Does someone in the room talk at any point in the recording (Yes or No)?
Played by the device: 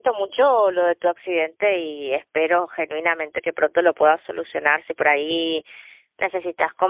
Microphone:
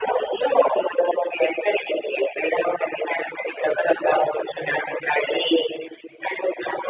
No